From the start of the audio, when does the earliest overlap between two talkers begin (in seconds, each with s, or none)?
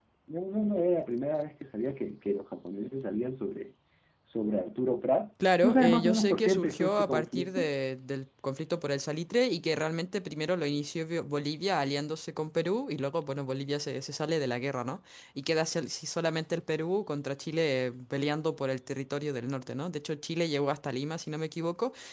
5.4 s